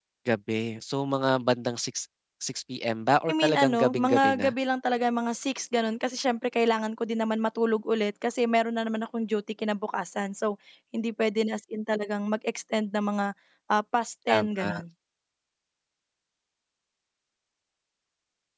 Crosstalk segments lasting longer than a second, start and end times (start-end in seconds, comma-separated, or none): 3.3-4.5